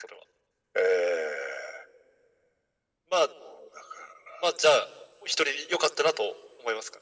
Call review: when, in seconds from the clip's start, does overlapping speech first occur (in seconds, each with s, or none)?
none